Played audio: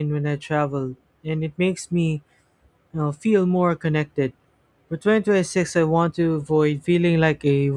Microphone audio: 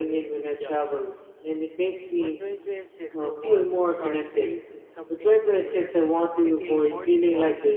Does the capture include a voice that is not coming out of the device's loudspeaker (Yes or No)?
Yes